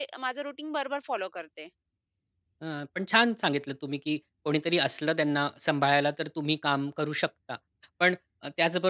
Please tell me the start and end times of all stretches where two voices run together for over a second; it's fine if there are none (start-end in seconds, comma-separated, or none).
none